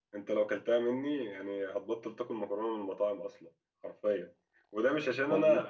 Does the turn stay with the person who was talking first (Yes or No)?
Yes